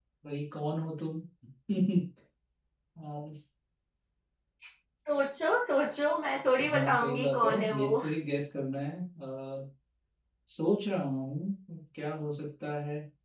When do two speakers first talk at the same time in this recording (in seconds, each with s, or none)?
6.6 s